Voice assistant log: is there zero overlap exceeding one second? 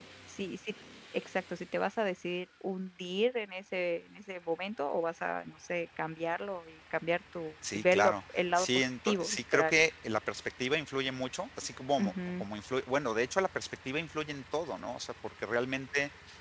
No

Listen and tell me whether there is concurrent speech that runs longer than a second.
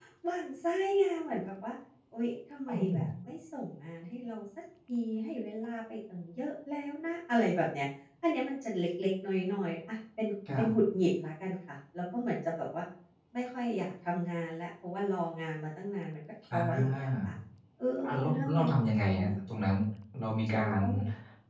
Yes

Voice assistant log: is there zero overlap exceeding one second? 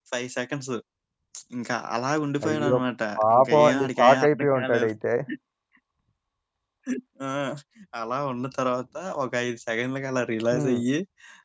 No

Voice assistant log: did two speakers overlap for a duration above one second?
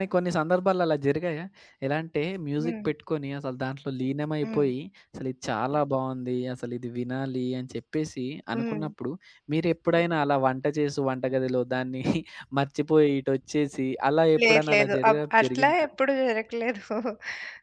Yes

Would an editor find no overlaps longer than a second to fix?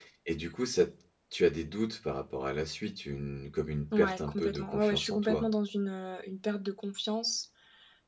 No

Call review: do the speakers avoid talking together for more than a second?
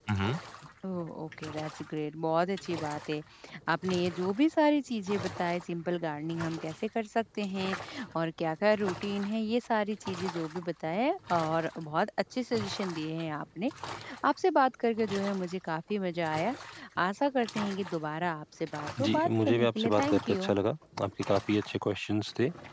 No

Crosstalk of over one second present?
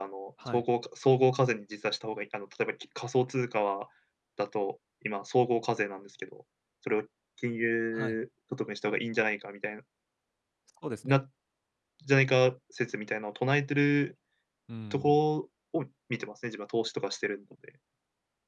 No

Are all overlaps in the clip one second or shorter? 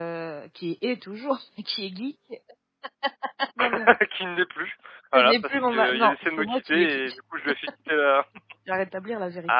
No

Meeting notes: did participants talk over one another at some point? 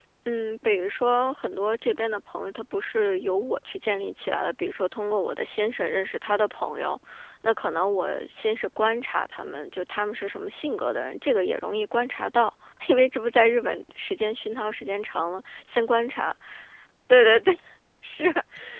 No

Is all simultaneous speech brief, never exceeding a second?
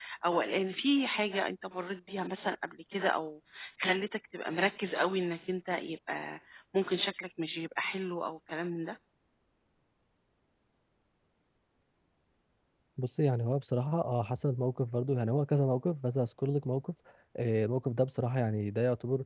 Yes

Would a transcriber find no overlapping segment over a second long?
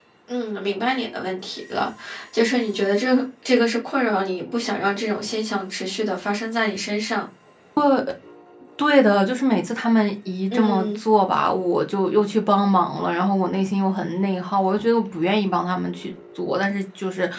Yes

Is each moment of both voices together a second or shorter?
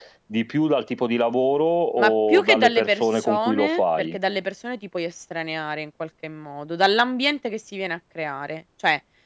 No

